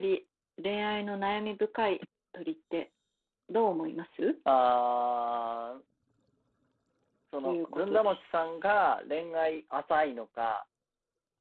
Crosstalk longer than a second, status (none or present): present